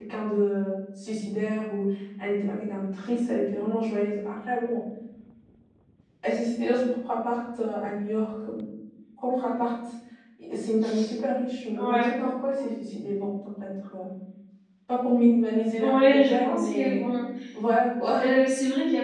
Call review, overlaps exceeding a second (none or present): present